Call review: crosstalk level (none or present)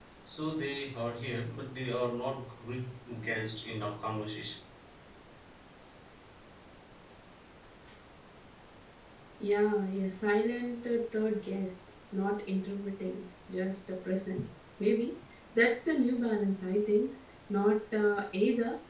none